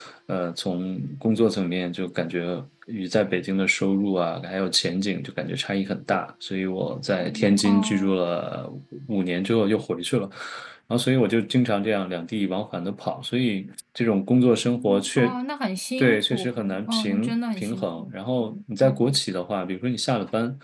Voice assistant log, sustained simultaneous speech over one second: present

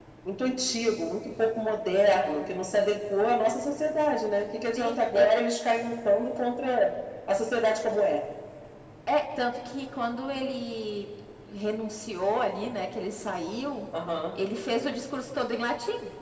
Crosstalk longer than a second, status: none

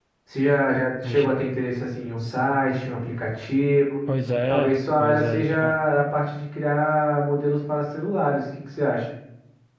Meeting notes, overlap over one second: present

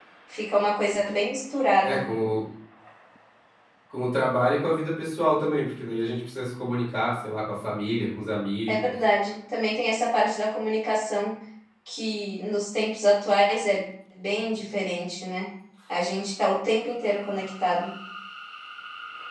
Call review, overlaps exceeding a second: none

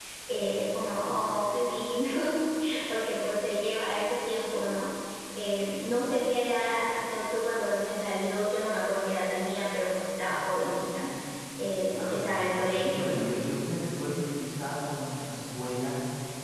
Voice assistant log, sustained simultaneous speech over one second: present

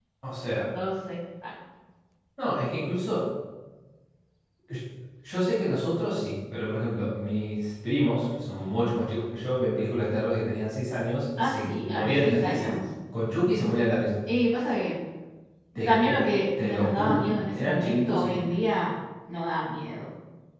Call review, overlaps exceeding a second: present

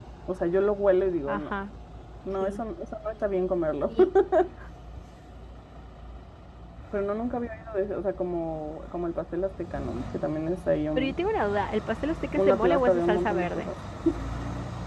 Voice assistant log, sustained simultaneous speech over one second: present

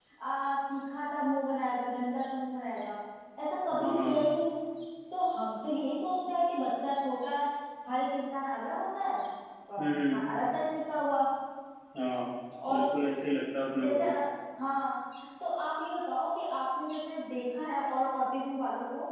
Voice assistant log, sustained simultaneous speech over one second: none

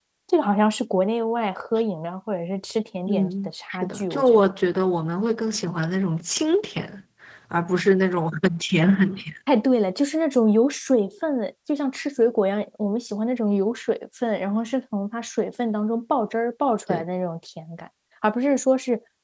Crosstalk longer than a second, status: present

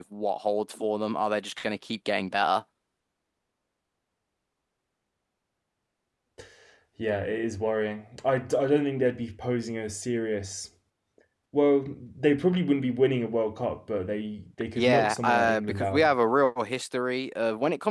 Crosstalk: present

